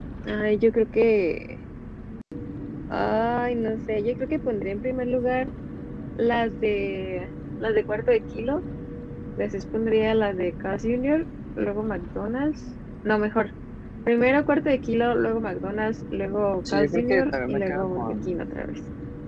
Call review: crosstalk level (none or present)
present